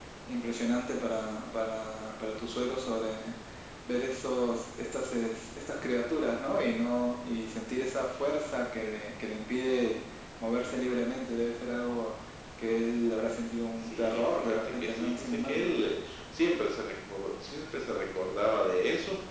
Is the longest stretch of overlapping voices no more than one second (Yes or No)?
No